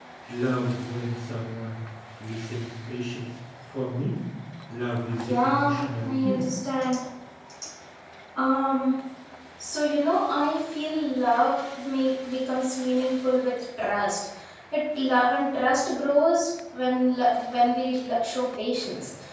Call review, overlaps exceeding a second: present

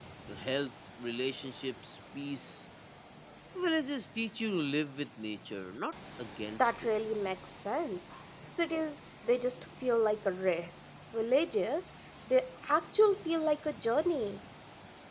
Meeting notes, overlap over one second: none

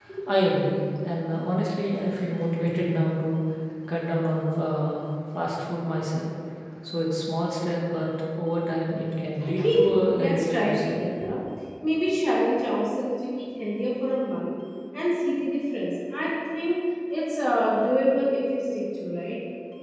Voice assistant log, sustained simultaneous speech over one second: present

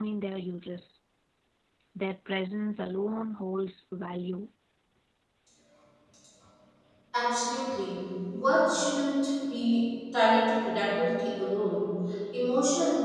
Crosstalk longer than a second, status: none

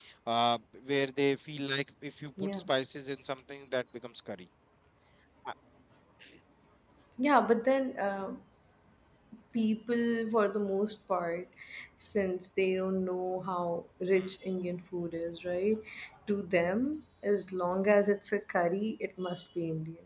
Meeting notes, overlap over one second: none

